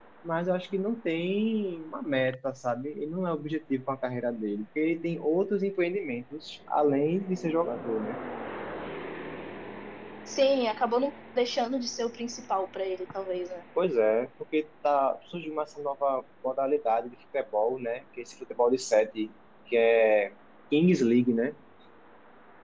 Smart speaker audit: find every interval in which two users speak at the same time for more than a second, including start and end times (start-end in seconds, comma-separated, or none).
none